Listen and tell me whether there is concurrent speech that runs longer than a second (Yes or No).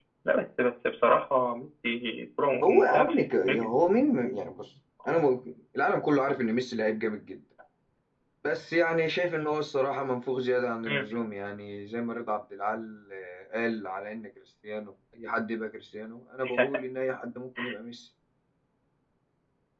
No